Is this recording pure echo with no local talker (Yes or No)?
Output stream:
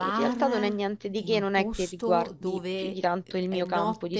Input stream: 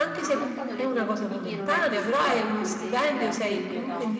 No